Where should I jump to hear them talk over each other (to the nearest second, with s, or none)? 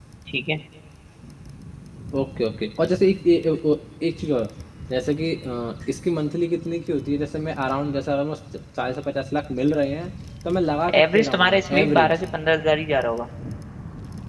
11 s